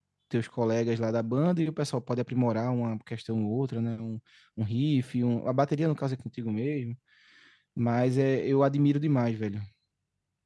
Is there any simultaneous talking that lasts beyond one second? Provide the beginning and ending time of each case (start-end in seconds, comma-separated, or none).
none